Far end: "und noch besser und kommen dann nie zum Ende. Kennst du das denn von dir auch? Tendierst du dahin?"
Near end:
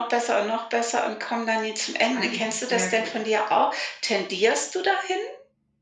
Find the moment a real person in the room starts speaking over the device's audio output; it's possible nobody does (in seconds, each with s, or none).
2.1 s